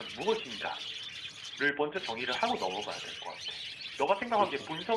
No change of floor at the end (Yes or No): Yes